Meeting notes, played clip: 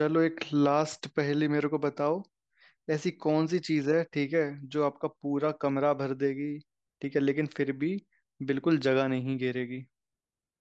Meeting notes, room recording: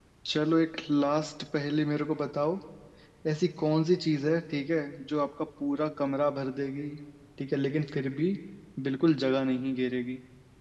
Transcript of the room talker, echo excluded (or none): none